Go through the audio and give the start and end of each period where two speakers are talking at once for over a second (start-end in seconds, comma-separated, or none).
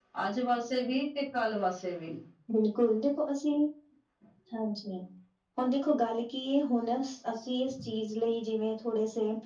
none